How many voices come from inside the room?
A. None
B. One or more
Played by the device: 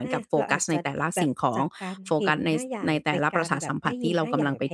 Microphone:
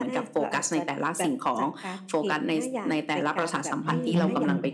B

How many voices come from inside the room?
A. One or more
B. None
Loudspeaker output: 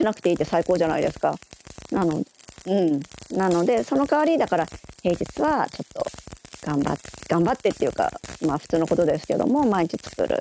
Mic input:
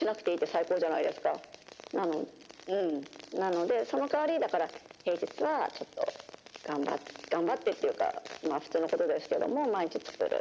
B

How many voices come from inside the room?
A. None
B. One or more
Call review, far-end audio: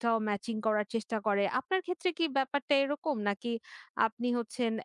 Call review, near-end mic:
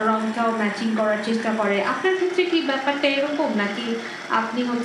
A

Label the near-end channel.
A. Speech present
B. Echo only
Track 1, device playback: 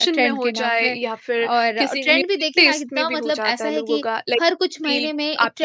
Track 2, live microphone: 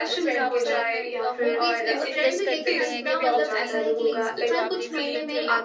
A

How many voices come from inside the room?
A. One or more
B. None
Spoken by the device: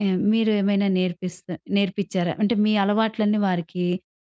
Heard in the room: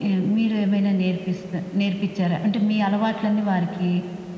B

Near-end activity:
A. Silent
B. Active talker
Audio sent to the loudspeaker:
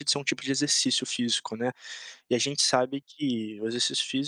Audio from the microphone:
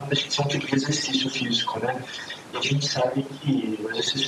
A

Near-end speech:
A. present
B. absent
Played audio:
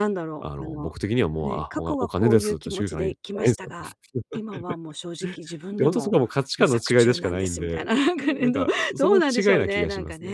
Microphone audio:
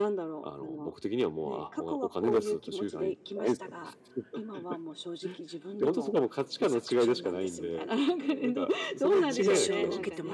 A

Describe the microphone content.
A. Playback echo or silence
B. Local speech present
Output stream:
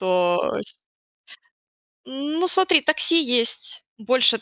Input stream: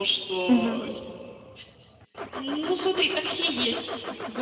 B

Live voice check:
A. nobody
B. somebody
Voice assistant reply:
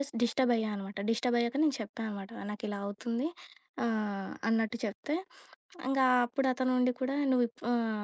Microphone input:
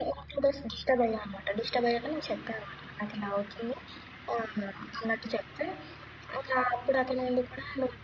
A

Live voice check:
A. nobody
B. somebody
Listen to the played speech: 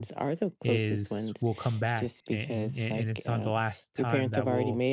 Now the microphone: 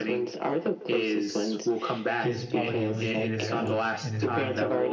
B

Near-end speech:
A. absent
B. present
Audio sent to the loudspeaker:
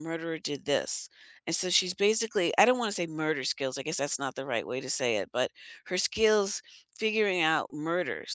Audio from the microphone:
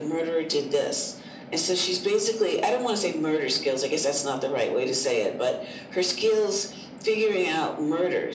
A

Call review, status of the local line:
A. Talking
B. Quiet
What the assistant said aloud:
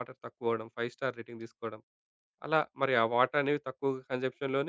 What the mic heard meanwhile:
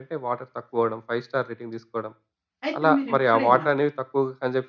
A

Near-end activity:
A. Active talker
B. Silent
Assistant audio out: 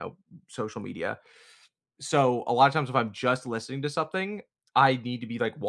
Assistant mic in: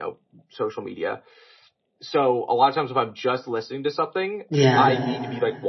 A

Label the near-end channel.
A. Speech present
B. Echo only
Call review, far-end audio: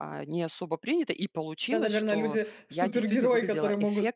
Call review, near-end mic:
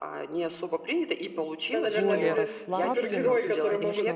A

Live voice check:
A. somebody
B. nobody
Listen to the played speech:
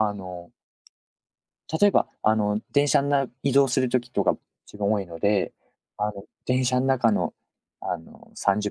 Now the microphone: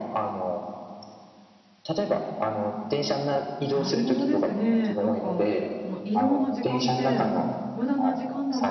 A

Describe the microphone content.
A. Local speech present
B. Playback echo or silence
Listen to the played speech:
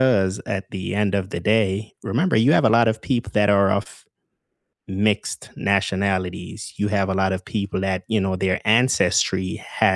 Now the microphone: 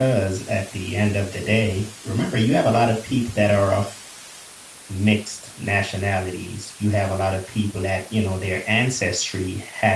B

